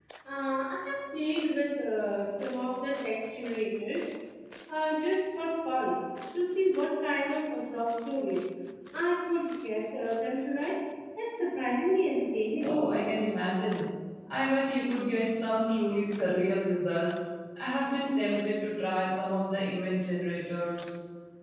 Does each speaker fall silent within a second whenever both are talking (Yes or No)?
Yes